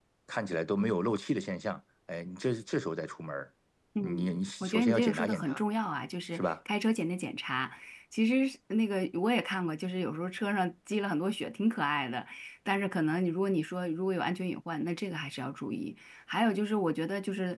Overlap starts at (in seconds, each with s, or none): 4.0 s